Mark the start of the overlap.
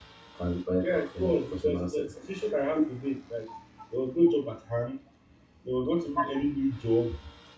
1 s

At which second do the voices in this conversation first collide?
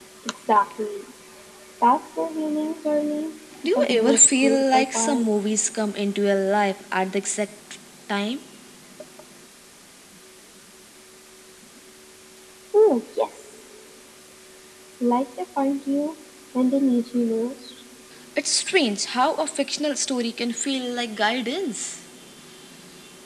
4 s

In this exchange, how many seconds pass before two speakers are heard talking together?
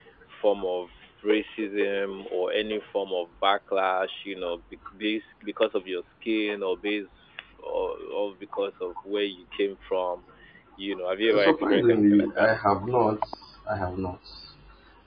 11 s

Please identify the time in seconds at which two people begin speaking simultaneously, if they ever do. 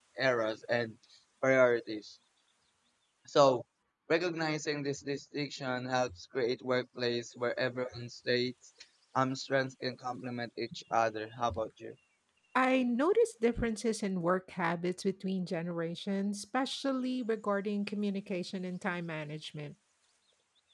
none

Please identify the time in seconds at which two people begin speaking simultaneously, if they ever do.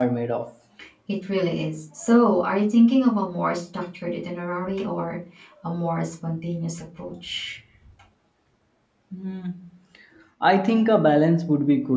none

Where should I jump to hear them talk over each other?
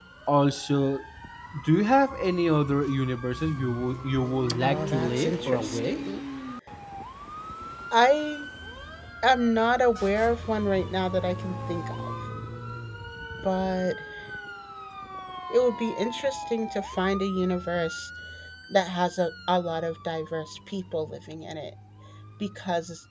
5 s

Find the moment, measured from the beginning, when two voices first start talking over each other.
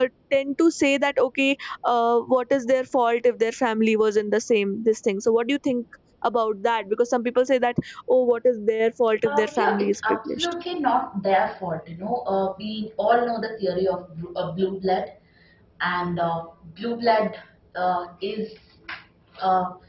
9 s

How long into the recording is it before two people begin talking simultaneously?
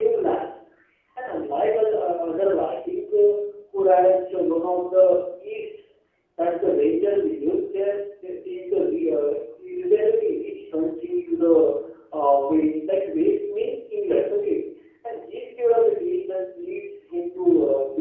none

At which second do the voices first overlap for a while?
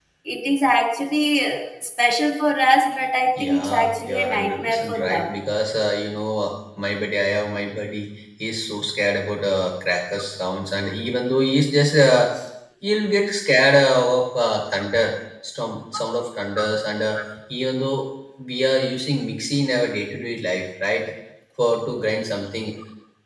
3 s

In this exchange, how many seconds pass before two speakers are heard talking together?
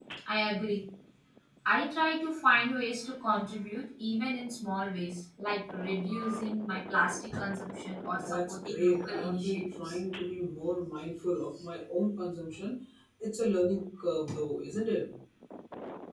8 s

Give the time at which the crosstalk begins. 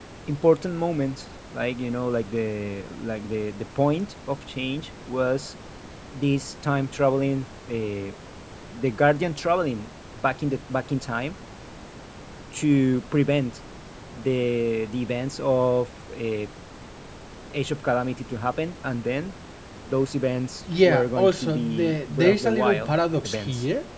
21 s

